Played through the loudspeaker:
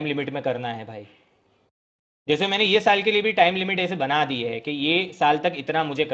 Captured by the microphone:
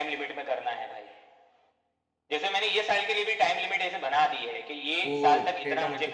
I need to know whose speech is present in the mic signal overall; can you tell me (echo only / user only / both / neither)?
both